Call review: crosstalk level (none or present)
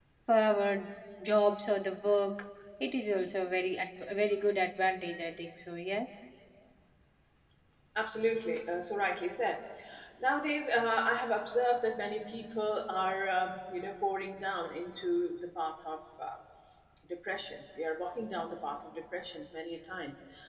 none